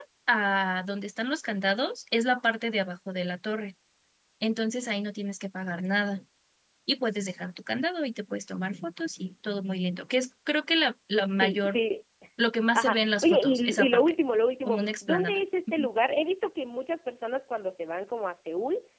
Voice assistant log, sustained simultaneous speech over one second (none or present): present